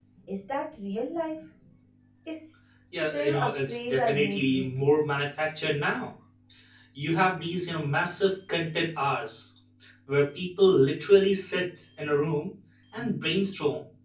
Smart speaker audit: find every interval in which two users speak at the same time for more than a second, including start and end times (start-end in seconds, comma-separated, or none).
3.1-4.6